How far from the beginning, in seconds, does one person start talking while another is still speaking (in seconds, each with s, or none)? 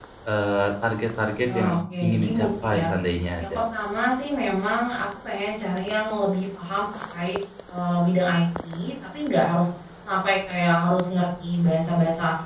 1.5 s